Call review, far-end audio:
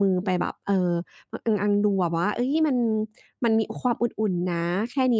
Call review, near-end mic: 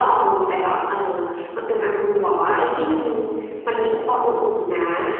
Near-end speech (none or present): none